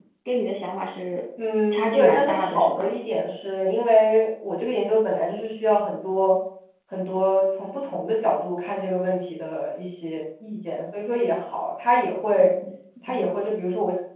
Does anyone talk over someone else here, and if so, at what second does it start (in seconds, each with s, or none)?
1.7 s